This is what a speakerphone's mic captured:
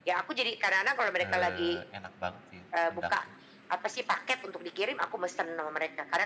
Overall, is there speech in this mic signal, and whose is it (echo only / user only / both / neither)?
both